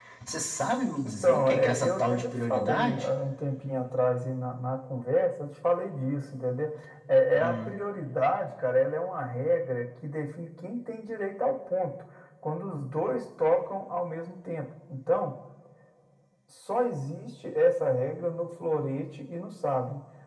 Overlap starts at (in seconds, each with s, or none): 1.1 s